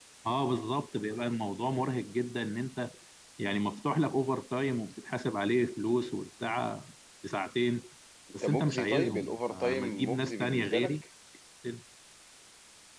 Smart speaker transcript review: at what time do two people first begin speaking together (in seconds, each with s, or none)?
8.4 s